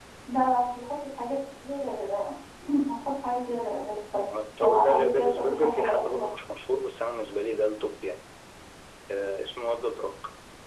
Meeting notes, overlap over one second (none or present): present